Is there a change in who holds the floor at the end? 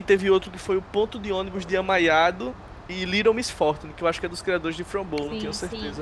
Yes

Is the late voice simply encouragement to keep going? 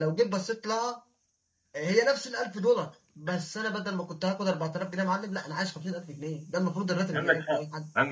No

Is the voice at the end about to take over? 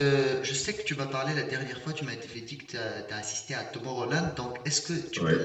No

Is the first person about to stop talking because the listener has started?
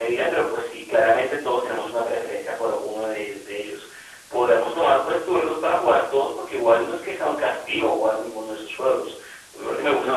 No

